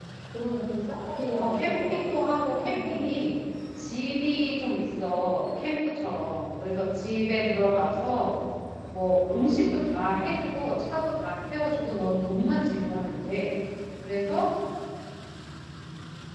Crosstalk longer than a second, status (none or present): present